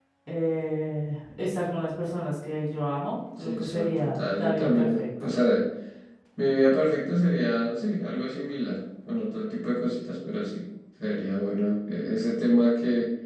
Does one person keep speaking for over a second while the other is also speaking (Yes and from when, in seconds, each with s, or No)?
Yes, from 3.4 s